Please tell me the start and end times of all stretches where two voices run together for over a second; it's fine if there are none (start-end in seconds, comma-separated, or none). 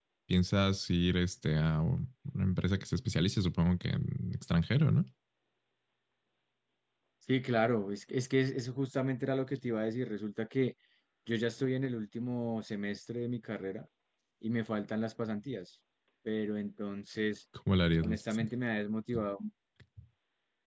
none